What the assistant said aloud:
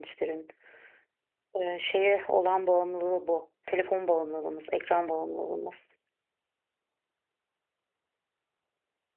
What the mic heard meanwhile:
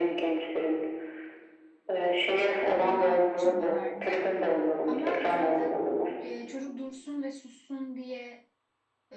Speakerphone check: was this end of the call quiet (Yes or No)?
No